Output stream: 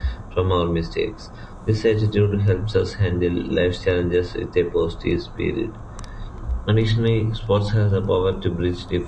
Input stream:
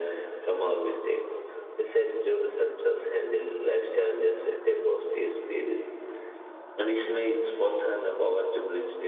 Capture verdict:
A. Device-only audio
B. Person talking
A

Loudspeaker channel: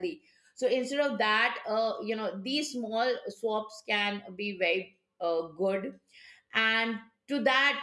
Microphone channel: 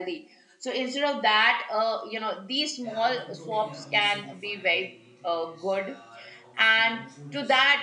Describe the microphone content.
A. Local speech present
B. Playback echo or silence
A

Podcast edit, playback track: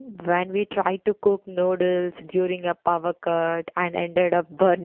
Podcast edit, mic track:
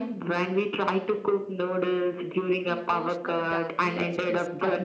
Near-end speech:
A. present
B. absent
A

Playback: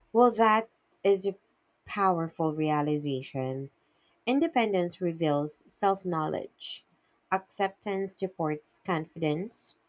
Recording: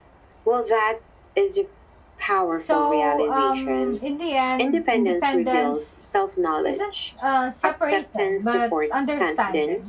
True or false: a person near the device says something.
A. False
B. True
B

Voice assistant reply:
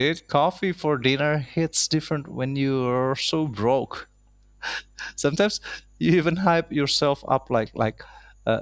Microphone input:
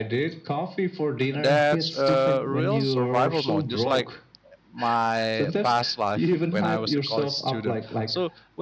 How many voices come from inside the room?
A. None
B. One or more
B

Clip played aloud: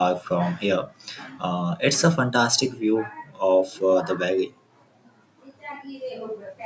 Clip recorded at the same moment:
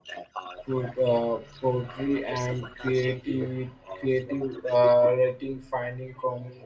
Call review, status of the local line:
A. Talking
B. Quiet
A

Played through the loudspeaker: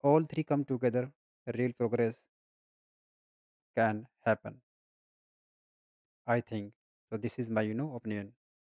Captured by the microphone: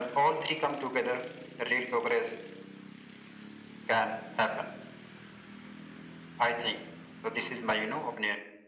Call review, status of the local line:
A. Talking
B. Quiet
B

